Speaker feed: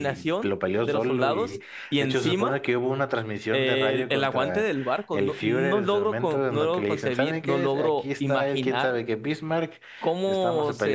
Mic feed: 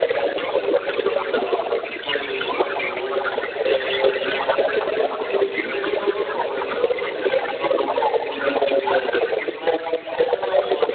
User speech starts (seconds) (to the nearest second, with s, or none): none